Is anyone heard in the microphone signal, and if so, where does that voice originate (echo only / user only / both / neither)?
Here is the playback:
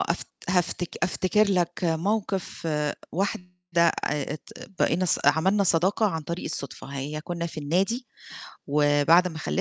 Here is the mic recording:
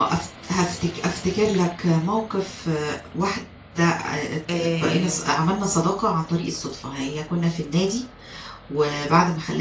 both